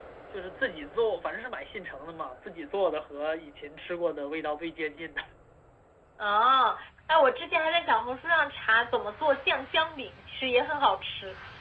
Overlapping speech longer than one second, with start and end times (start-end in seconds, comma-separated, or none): none